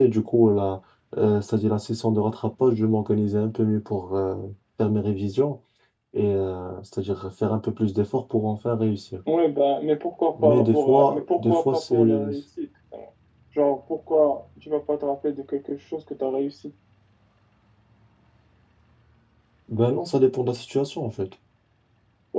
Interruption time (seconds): 10 s

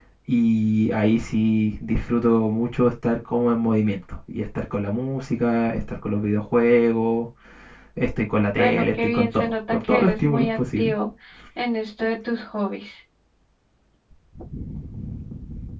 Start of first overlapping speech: 9 s

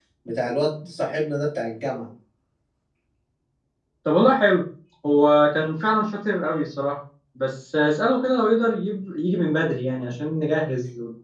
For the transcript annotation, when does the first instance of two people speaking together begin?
none

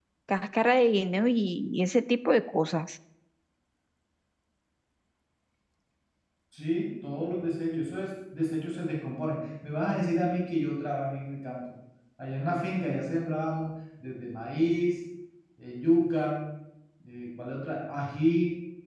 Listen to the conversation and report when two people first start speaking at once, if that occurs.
none

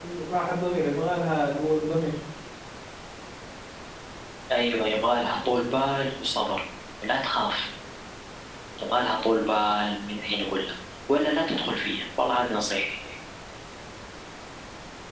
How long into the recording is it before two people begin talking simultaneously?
none

